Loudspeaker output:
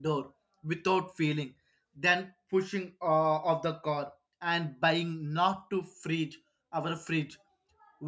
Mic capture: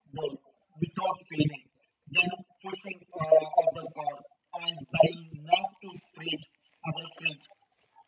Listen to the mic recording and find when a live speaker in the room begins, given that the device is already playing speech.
none

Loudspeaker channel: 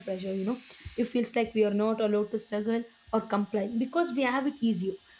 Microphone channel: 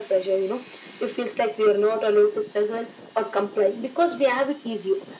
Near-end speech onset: none

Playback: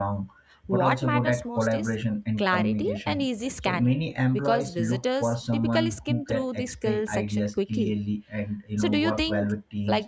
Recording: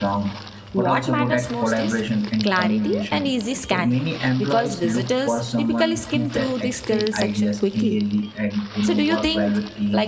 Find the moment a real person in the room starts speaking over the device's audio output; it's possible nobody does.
none

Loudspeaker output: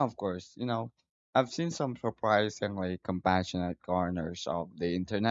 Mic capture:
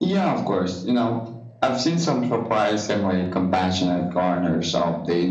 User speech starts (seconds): none

